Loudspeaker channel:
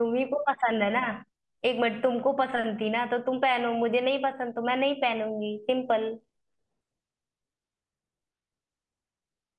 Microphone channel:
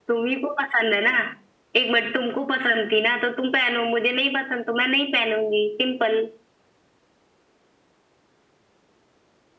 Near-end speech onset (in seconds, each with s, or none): none